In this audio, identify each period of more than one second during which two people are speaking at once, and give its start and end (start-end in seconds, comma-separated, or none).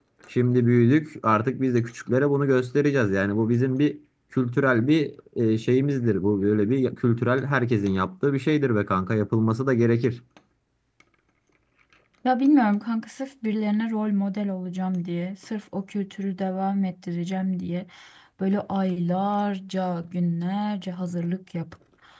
none